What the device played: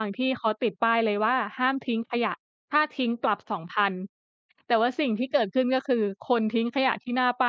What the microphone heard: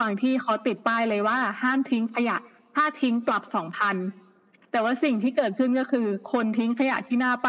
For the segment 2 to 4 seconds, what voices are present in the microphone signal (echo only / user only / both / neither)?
echo only